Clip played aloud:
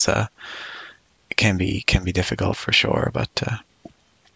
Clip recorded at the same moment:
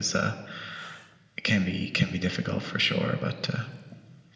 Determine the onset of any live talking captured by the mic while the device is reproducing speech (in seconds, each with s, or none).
none